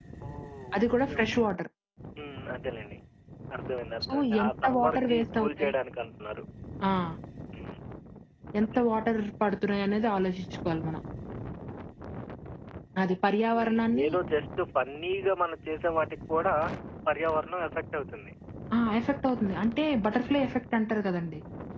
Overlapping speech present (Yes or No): Yes